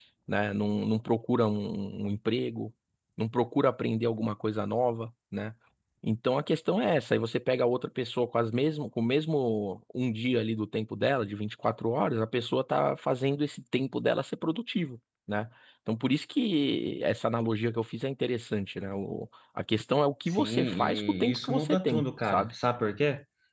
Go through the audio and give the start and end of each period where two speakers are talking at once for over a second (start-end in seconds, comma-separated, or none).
20.3-22.5